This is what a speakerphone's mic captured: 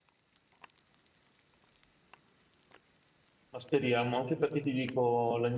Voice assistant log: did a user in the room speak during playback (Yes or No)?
Yes